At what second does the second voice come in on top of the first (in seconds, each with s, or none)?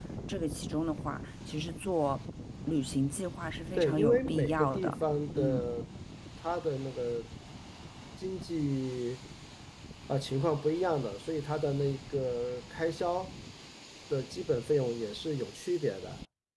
3.7 s